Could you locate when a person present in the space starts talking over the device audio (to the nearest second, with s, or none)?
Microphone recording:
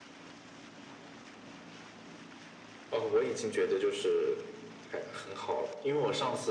none